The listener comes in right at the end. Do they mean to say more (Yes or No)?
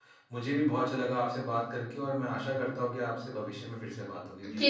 Yes